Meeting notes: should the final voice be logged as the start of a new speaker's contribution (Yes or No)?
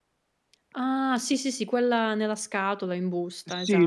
Yes